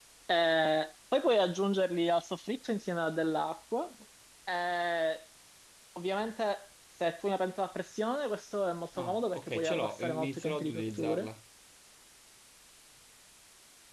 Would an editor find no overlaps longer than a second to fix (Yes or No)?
No